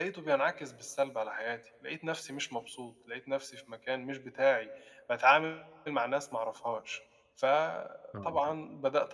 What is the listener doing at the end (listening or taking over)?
listening